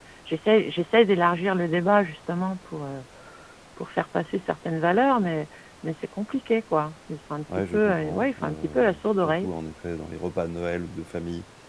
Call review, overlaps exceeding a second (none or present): present